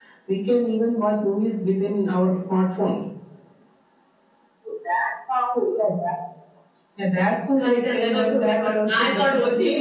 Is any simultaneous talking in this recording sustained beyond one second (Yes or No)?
Yes